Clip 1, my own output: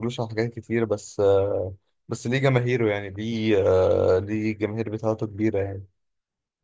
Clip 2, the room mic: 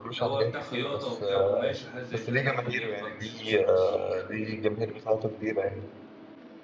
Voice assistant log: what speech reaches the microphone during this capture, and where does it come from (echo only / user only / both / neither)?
both